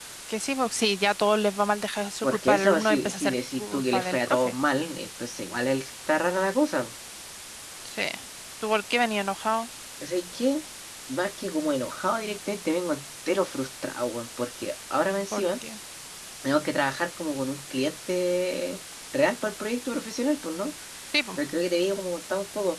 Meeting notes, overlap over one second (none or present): present